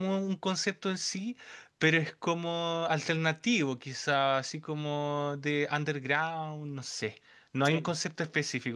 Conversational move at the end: listening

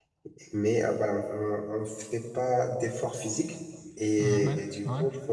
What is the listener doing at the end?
listening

